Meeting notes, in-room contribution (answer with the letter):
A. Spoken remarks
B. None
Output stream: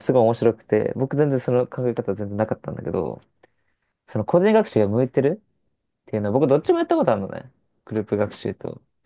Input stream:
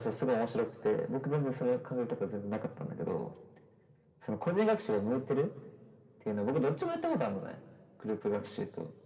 B